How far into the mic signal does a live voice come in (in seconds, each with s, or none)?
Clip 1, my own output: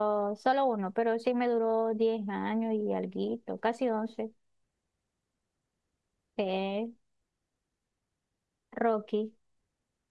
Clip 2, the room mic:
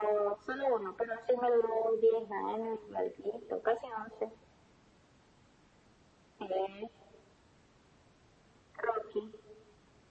none